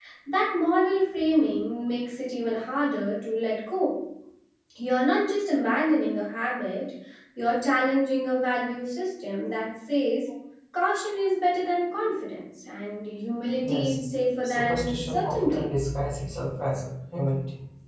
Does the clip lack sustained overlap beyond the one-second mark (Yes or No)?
No